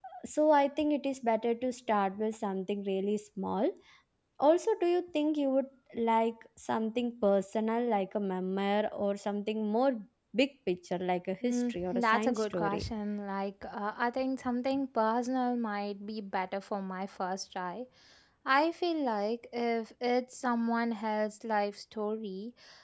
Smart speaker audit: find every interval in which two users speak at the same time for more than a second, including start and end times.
11.4-12.8

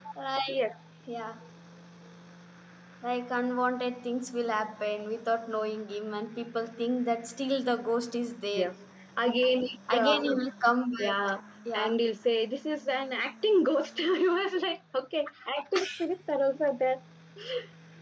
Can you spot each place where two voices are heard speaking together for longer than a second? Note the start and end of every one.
none

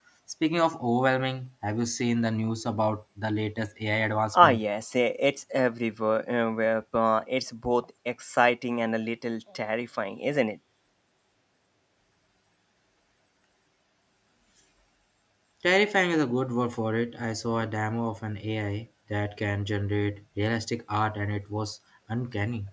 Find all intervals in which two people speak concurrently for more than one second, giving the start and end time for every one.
none

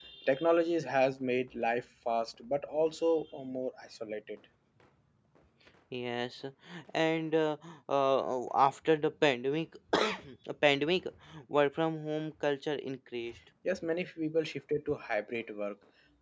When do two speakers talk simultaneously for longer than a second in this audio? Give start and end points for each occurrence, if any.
none

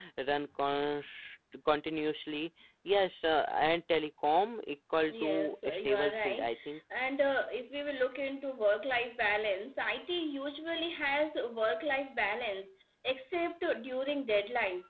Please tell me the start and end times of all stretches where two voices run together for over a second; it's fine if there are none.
5.1-6.5

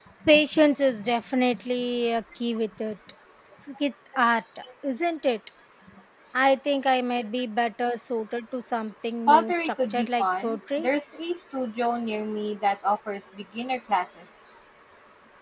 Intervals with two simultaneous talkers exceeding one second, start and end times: 9.3-10.9

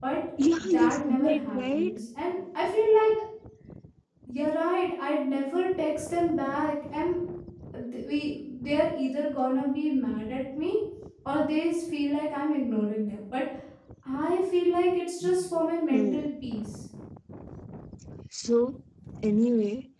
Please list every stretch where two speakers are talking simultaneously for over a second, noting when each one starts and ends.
0.7-2.0

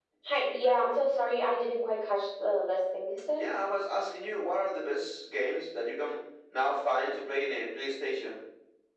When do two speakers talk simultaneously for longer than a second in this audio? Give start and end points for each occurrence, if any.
none

